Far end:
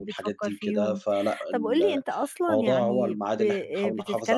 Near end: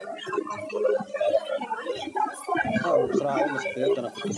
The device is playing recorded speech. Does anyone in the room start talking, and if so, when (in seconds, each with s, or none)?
2.9 s